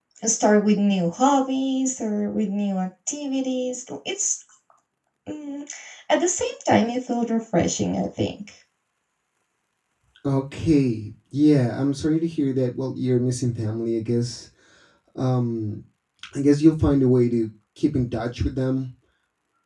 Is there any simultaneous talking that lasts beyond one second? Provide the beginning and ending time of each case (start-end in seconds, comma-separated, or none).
none